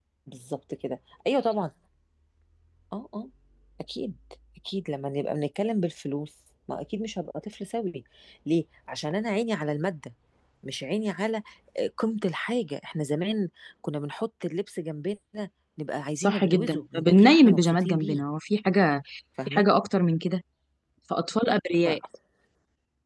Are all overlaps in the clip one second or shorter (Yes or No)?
No